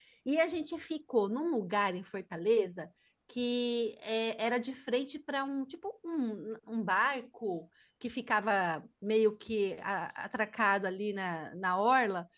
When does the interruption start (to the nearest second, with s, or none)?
none